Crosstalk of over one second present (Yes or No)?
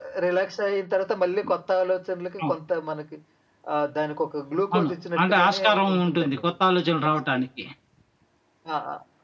Yes